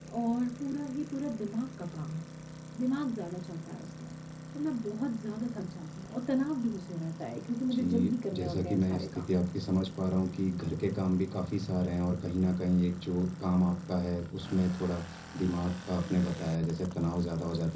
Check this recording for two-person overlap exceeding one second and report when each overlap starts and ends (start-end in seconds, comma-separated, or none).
7.7-9.2